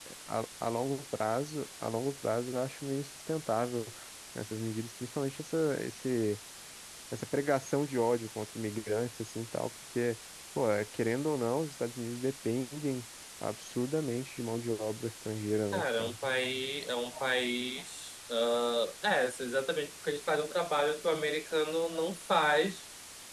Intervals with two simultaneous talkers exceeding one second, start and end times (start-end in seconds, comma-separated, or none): none